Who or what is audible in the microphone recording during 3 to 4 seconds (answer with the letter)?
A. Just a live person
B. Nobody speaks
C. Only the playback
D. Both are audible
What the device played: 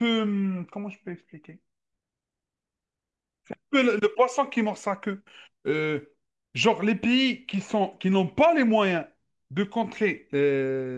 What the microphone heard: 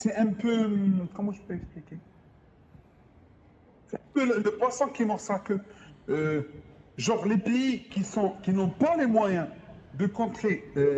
B